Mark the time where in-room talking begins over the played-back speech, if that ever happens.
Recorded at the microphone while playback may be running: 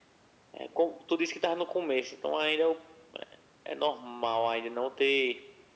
none

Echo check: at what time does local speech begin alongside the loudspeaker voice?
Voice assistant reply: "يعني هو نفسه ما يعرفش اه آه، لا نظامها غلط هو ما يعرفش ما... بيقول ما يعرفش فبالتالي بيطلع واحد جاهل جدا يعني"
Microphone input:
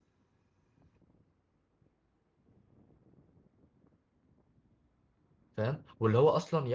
6 s

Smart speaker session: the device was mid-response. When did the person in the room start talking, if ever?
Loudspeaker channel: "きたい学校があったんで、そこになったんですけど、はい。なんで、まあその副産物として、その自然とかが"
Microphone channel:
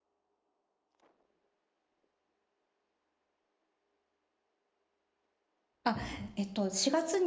6 s

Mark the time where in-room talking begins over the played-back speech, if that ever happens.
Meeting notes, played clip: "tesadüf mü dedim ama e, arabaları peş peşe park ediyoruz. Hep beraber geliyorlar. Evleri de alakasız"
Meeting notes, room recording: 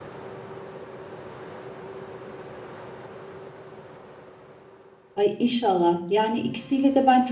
5 s

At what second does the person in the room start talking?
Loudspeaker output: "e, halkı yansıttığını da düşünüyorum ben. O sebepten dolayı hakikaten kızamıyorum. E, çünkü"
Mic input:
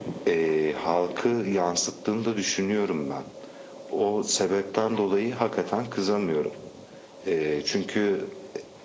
none

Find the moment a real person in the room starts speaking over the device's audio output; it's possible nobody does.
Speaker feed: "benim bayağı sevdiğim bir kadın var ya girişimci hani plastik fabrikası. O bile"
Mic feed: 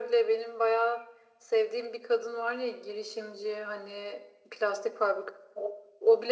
none

